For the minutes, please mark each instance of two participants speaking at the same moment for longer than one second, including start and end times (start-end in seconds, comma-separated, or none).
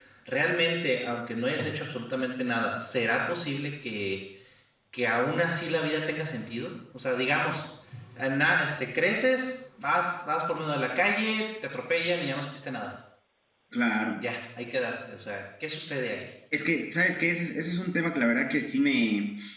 none